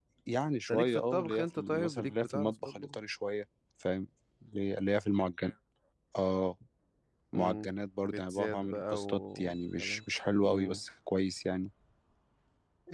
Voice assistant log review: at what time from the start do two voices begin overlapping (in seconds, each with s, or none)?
0.7 s